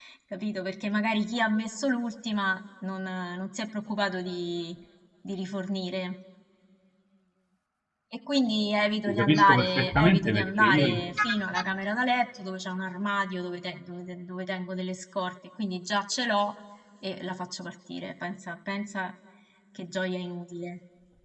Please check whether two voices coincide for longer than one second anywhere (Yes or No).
Yes